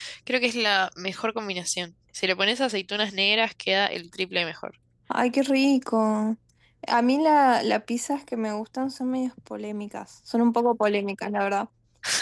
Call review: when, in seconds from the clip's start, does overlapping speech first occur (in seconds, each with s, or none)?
none